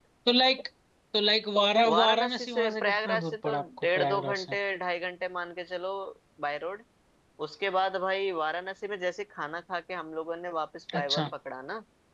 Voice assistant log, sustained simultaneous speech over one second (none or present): present